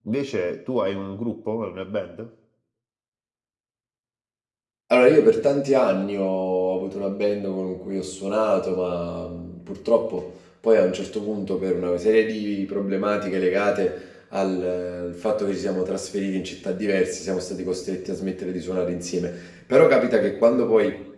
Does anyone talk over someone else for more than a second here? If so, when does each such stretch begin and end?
none

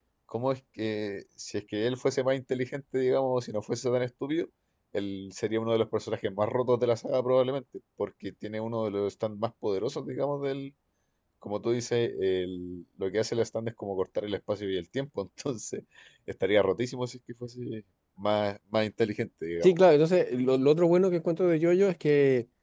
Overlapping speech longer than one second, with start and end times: none

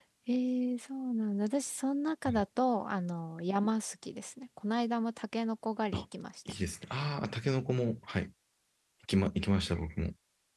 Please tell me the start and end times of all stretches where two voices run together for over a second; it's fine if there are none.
none

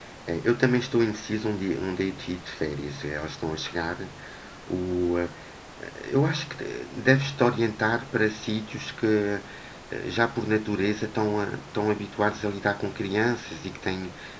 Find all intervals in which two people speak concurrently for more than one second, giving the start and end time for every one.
none

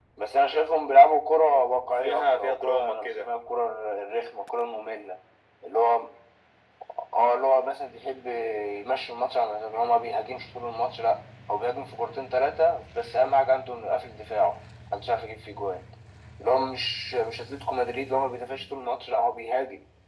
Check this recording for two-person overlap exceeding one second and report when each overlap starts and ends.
2.0-3.3

